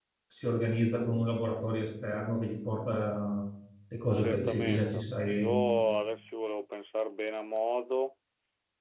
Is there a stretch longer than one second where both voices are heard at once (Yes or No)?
Yes